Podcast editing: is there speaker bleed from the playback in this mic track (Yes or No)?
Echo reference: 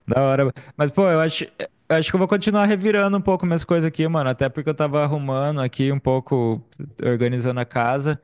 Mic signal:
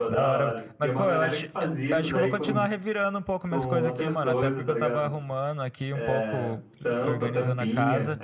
Yes